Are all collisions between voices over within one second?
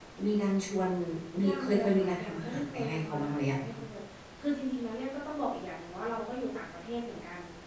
No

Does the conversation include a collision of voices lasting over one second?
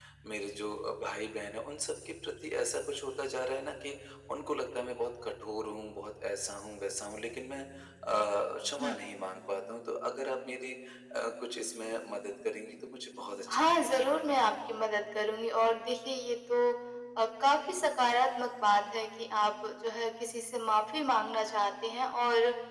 No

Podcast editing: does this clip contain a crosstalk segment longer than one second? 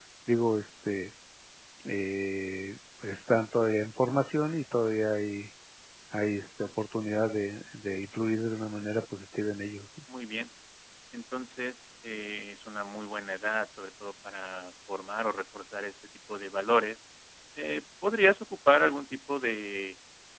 No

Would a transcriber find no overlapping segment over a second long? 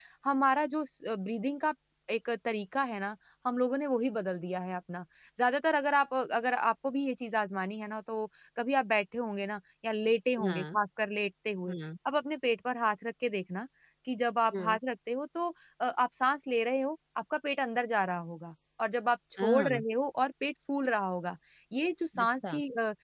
Yes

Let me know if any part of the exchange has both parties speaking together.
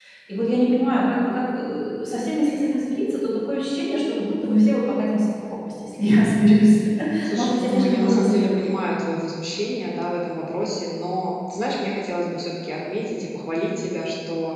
Yes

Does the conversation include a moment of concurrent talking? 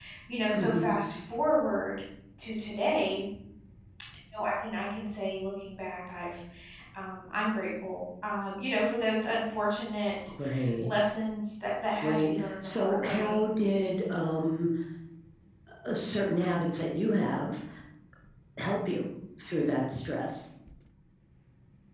Yes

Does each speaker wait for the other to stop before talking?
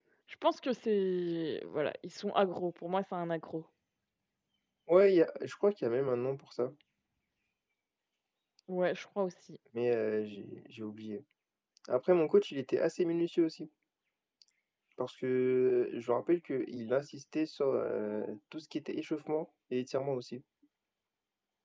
Yes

